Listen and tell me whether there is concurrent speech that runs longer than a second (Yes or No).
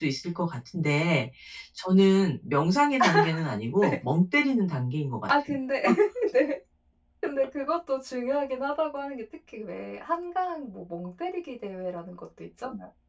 No